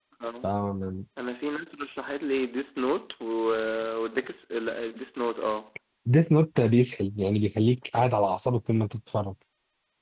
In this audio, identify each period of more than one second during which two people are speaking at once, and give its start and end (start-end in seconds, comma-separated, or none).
none